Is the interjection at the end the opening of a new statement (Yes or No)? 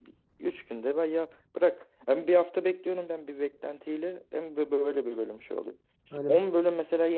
No